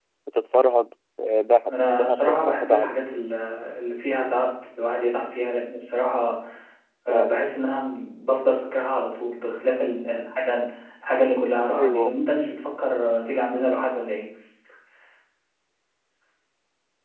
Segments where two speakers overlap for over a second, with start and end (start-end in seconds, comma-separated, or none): 1.7-2.9